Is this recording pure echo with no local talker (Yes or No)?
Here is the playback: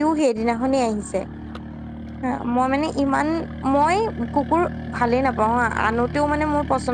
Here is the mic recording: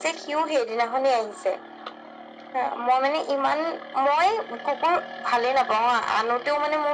Yes